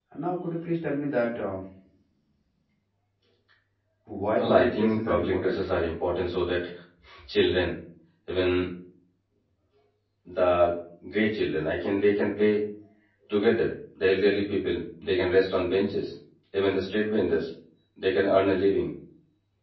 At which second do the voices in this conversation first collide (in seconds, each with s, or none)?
4.4 s